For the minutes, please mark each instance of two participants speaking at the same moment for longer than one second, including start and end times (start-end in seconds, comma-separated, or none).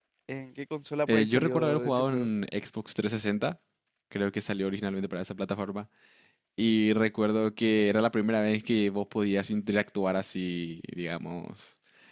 1.1-2.3